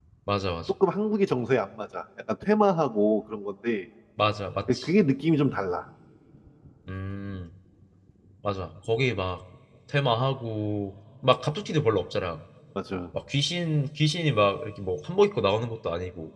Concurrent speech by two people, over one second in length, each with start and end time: none

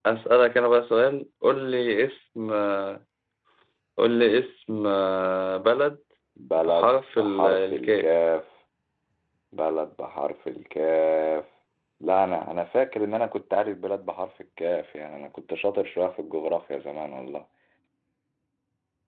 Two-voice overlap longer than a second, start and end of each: 6.6-8.1

